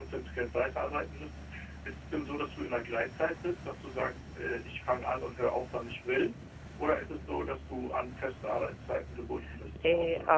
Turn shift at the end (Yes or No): Yes